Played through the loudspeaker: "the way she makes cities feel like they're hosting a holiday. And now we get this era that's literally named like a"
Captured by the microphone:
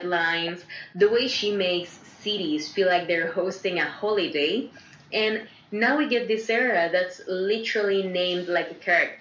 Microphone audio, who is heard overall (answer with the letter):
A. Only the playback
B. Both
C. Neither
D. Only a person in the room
A